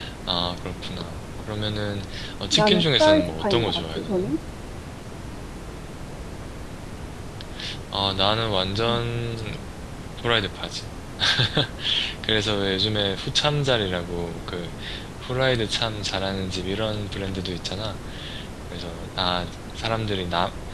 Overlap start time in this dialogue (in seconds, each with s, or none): 2.5 s